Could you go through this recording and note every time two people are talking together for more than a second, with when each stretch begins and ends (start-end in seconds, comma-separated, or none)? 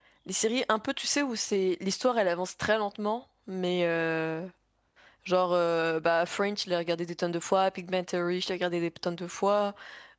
none